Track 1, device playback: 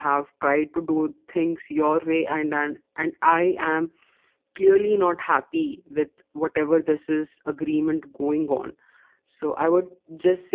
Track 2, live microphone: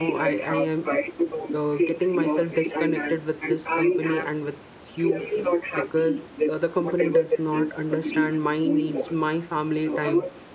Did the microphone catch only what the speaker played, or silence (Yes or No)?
No